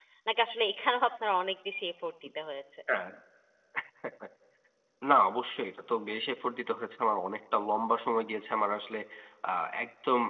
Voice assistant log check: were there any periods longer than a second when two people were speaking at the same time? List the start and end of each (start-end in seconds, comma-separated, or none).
none